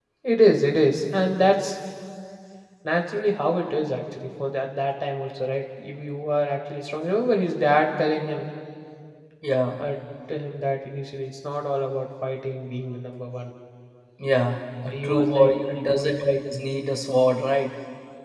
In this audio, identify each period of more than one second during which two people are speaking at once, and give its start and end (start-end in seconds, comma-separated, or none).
14.9-16.3